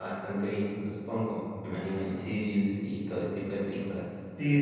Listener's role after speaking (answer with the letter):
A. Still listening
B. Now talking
B